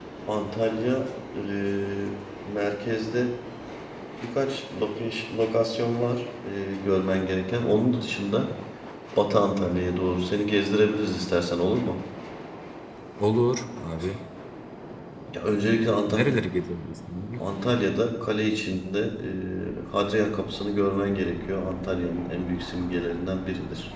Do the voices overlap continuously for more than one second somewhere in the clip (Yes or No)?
No